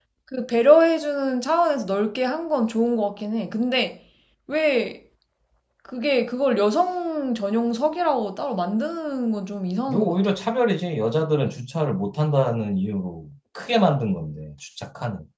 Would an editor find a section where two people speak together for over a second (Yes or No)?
No